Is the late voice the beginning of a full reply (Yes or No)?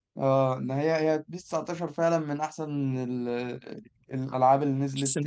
Yes